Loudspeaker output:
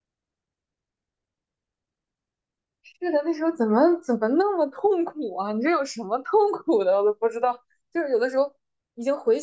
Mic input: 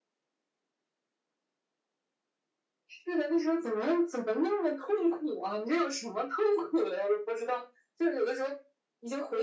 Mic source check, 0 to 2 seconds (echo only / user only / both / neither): neither